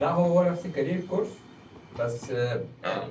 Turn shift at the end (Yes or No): No